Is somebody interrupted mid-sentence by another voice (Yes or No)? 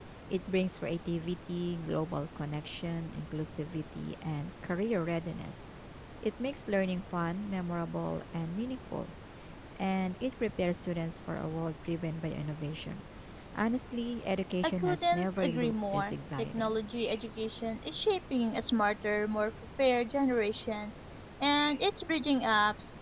Yes